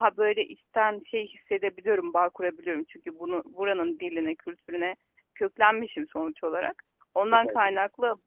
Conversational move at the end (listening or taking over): listening